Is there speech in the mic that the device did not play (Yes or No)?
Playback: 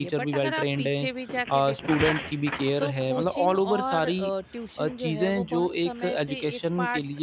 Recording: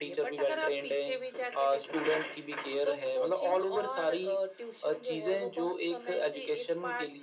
No